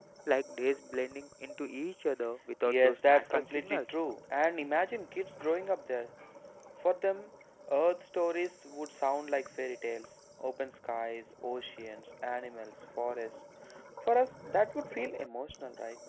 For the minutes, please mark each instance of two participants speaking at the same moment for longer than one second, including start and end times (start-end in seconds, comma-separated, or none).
2.6-3.9